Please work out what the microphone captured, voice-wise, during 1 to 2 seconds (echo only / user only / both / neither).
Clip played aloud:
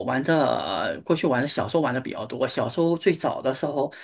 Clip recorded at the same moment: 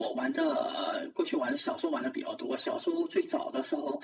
echo only